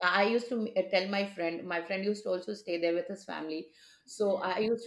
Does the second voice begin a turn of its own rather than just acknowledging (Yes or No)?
No